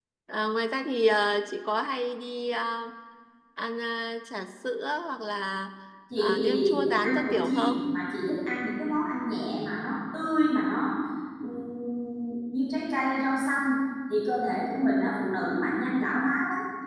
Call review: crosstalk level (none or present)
present